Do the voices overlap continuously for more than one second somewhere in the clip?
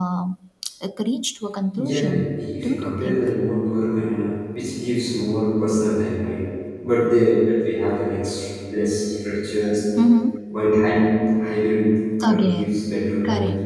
Yes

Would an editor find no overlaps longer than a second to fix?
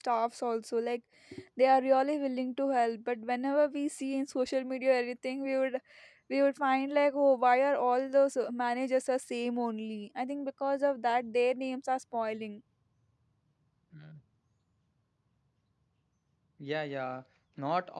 Yes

